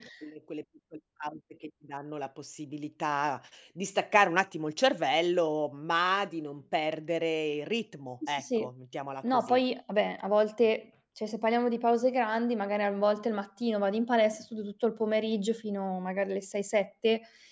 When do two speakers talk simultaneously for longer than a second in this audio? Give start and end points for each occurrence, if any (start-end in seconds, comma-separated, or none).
none